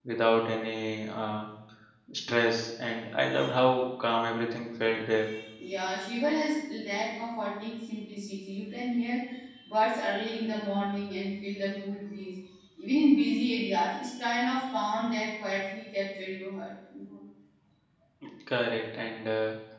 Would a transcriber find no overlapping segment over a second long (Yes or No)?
Yes